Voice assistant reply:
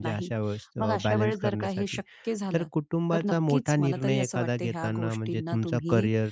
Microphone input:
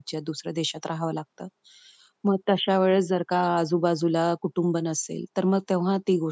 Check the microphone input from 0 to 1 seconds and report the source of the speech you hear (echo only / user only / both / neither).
user only